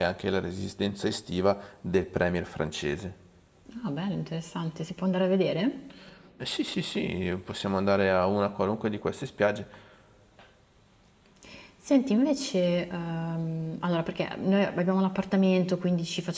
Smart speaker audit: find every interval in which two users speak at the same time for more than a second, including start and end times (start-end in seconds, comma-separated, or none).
none